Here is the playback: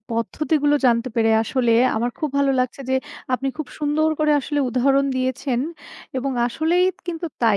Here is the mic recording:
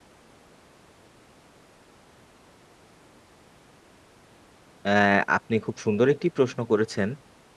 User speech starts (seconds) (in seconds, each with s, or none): 4.9 s